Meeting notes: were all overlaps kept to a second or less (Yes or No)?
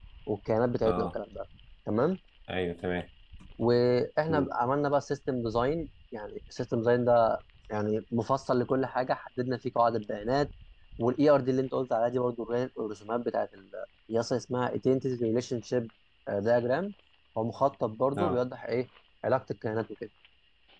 Yes